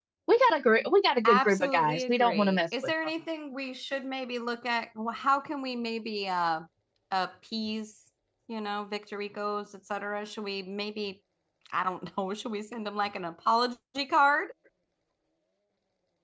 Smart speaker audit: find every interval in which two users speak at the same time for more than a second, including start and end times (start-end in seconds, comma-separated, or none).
1.2-2.9